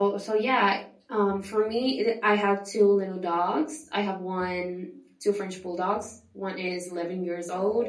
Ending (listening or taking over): listening